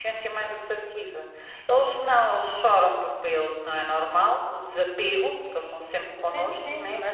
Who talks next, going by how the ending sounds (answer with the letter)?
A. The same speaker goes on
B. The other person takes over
B